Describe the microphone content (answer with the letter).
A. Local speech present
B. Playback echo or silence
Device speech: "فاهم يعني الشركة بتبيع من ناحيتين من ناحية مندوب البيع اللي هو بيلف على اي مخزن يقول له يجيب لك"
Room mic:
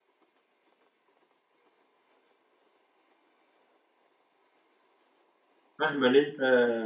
A